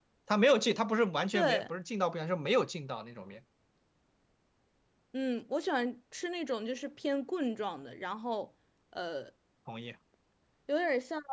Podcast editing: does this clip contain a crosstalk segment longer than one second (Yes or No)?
No